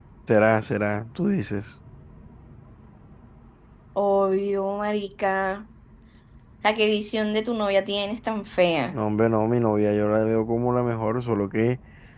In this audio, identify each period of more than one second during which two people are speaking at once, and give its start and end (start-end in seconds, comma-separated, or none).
none